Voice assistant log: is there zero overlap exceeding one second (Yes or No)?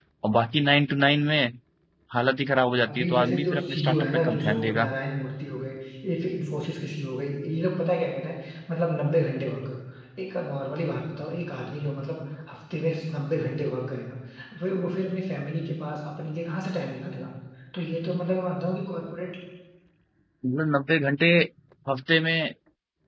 No